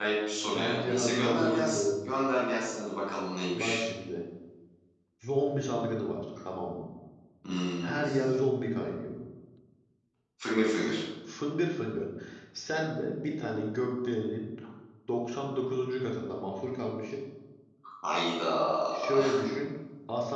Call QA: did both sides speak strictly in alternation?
No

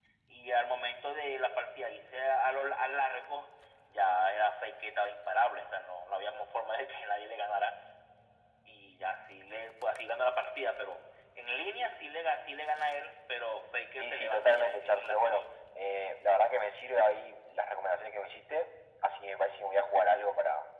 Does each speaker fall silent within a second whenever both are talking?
No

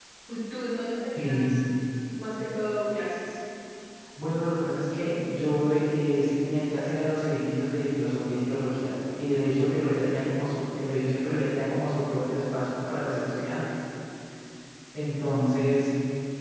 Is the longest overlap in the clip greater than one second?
No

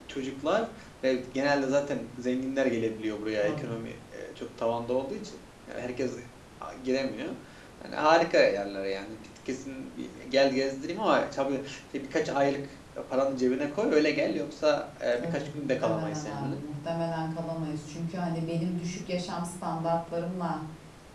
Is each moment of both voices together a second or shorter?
No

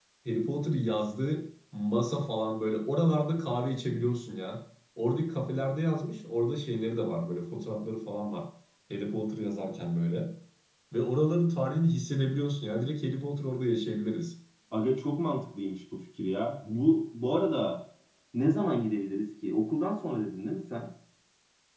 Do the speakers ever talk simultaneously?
No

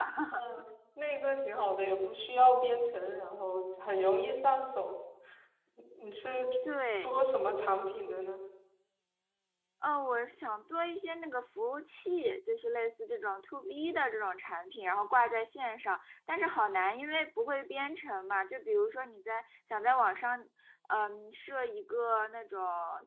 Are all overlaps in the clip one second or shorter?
Yes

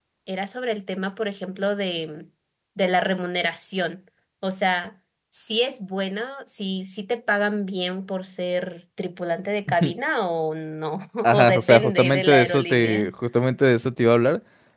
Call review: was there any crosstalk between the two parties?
Yes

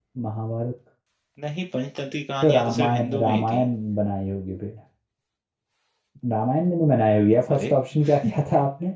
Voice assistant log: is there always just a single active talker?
No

